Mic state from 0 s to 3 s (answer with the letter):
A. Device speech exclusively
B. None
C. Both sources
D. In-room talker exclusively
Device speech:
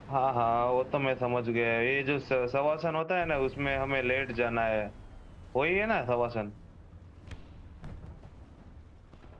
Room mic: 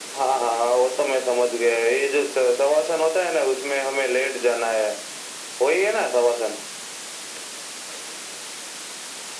A